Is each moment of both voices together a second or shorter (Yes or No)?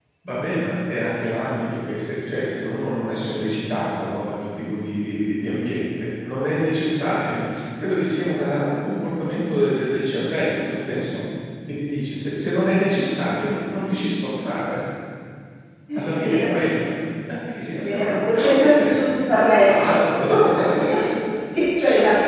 No